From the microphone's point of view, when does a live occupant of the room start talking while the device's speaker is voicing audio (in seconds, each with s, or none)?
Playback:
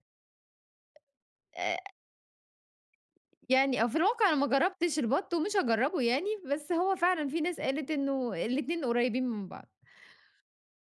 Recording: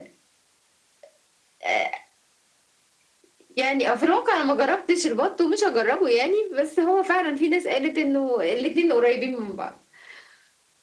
none